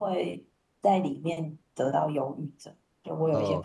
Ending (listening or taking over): taking over